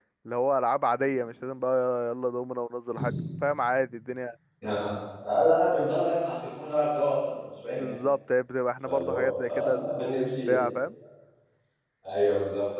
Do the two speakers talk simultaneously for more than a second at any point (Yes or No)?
Yes